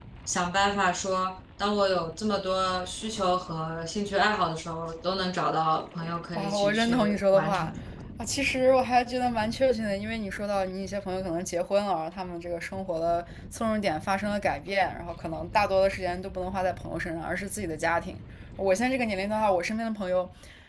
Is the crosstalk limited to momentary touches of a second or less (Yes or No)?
No